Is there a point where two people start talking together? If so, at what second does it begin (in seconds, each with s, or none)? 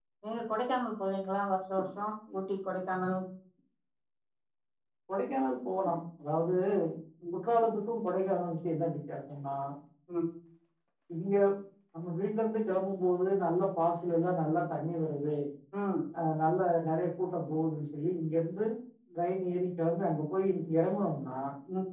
none